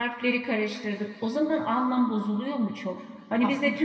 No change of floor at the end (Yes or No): Yes